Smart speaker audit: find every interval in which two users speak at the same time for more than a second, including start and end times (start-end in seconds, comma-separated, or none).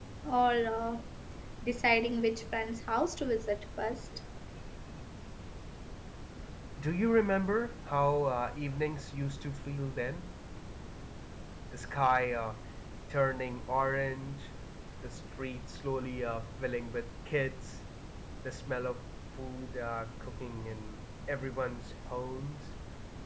none